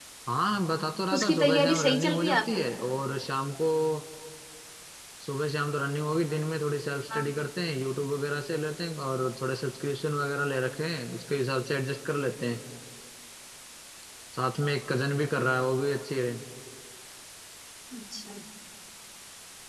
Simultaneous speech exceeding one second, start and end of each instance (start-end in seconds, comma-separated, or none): 1.1-2.7